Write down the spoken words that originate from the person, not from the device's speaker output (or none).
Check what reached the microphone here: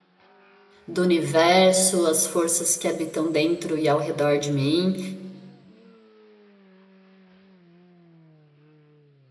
do universo, as forças que habitam dentro e ao redor de mim.